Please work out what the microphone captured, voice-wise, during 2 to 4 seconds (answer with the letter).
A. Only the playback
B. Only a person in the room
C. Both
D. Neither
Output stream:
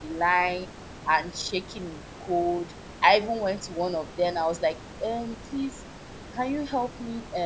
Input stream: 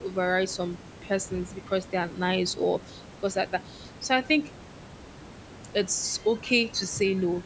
B